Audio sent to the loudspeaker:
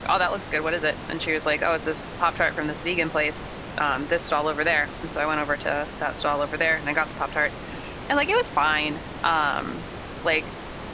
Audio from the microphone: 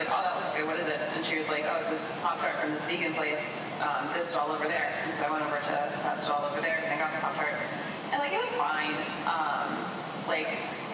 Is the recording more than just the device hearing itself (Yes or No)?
No